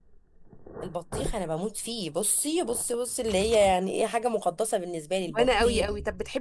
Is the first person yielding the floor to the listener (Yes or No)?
Yes